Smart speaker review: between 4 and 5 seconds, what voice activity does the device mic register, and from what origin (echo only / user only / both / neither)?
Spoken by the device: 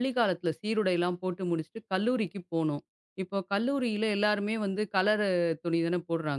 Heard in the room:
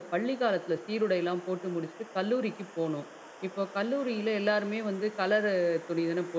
echo only